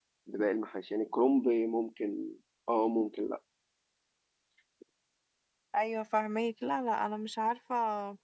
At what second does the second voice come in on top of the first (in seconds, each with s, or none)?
none